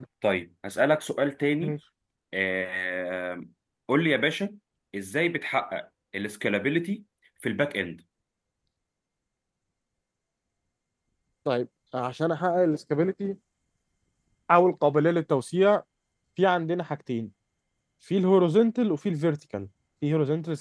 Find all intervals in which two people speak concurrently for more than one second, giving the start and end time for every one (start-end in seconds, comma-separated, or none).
none